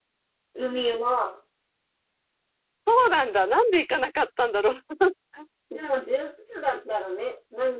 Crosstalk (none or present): none